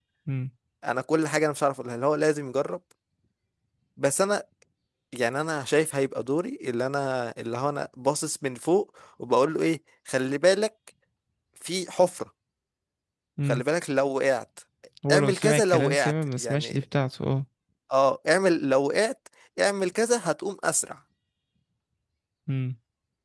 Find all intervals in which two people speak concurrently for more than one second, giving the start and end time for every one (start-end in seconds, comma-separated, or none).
15.1-16.8